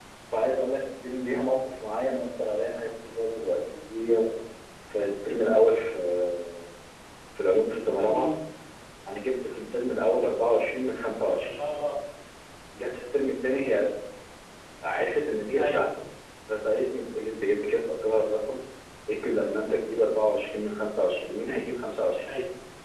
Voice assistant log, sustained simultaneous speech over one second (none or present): none